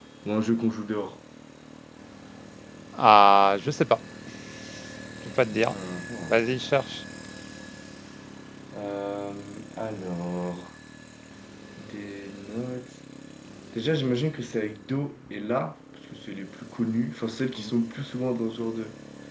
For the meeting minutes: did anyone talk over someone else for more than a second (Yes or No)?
No